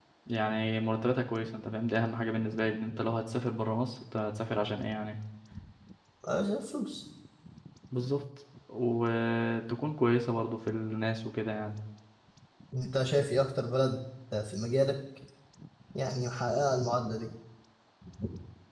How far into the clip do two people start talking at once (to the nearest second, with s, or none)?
none